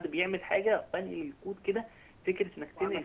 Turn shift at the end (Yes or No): No